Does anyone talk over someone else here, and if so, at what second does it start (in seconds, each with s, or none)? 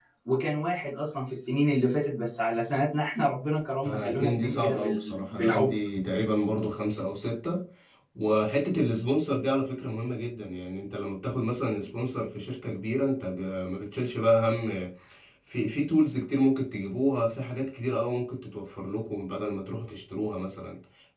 3.8 s